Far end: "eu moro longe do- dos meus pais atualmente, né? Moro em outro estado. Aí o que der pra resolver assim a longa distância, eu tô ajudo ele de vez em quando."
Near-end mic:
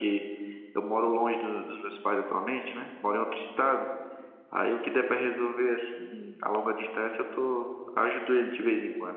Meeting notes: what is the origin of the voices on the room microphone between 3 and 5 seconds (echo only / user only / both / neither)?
echo only